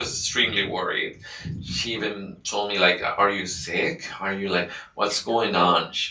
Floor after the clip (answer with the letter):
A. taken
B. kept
B